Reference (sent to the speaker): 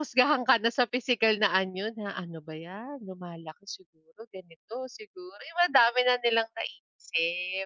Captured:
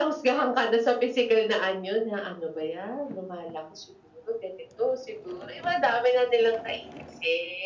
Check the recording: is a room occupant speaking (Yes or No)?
No